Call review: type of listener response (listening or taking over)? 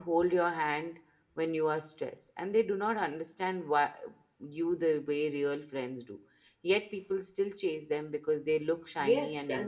taking over